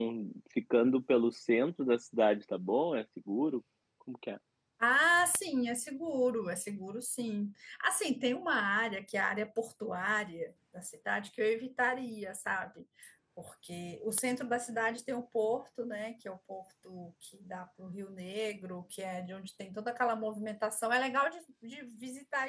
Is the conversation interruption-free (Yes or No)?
Yes